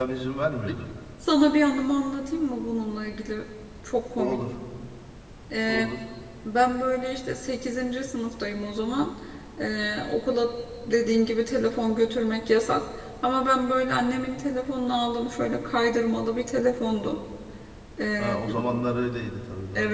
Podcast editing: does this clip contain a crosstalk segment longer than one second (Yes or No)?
No